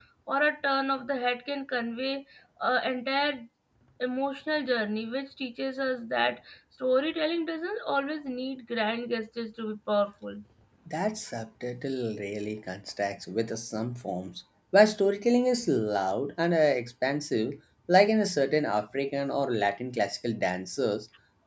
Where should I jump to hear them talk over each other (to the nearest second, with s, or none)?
none